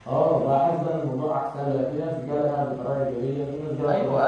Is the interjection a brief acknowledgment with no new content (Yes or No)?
No